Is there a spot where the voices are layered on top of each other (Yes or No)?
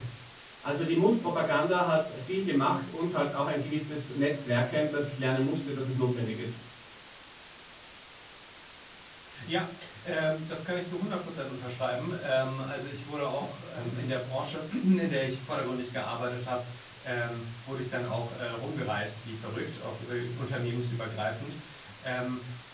No